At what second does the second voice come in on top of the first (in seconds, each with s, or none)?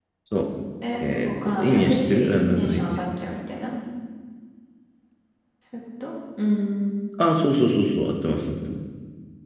1.2 s